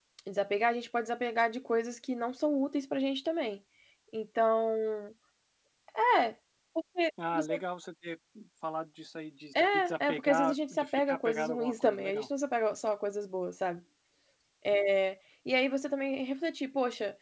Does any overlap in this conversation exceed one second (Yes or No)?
Yes